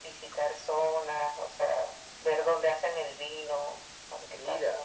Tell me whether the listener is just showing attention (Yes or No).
No